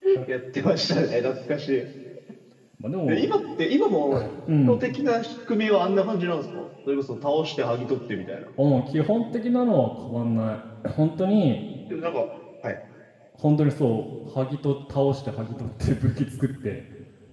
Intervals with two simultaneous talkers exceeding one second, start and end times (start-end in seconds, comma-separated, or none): none